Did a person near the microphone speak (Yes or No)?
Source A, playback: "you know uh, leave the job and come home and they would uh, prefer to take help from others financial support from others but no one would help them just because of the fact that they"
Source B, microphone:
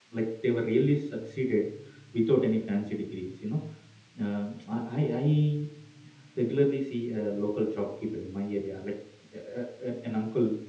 Yes